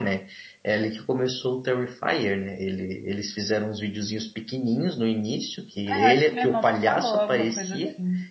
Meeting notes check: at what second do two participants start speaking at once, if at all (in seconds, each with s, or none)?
5.9 s